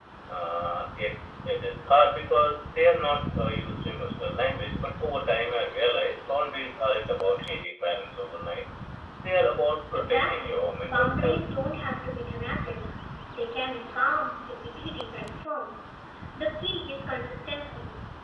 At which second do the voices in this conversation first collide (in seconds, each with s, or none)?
9.9 s